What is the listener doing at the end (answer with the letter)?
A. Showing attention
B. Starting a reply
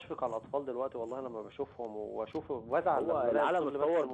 B